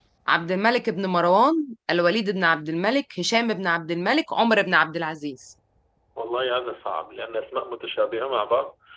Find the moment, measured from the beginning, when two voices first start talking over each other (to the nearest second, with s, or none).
none